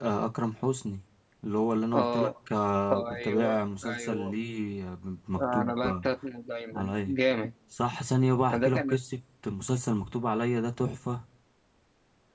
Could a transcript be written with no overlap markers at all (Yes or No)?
No